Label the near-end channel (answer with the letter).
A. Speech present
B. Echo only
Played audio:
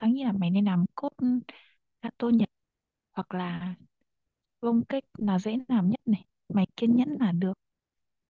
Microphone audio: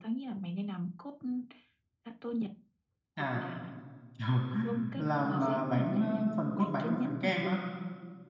A